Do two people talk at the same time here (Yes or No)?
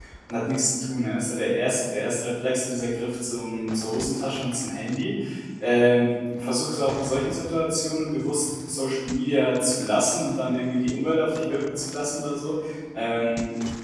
No